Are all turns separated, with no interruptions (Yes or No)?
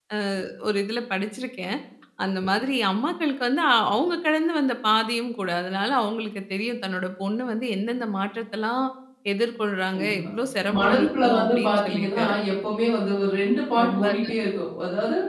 No